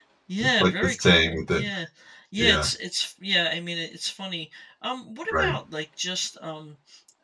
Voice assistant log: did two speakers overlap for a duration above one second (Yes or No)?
Yes